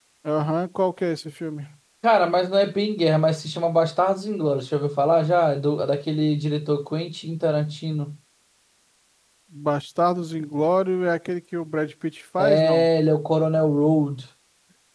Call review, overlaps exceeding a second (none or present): none